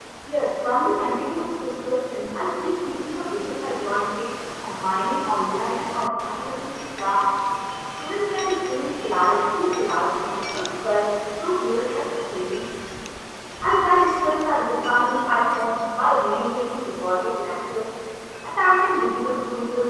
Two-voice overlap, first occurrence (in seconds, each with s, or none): none